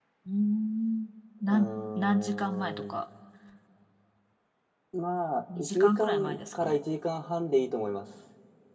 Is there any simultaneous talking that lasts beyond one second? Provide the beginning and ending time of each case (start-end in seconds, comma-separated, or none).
1.5-2.9, 5.6-6.8